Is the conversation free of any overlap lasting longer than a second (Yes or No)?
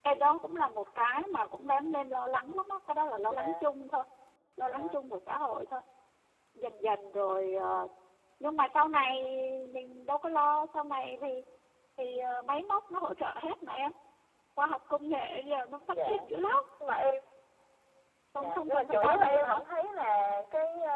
No